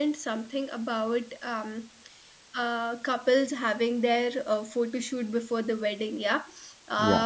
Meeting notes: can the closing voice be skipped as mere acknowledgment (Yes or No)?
Yes